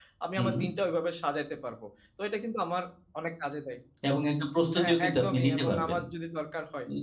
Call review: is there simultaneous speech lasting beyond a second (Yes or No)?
Yes